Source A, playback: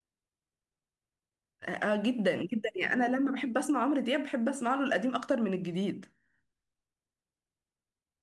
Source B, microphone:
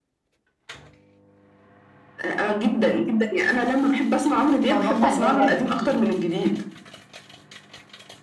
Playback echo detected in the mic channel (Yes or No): Yes